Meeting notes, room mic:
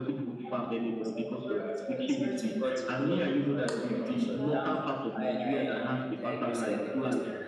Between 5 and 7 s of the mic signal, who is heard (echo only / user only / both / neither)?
both